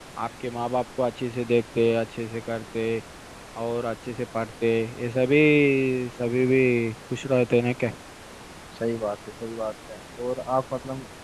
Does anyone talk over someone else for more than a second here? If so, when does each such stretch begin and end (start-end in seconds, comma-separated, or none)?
none